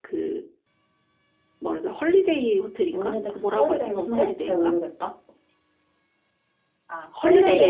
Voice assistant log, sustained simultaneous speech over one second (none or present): present